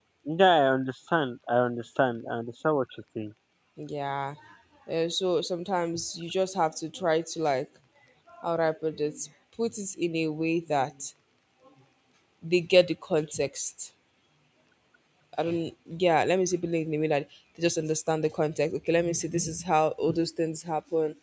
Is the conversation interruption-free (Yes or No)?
Yes